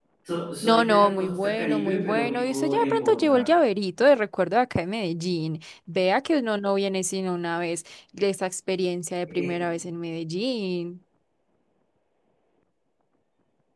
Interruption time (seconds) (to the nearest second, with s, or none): 1 s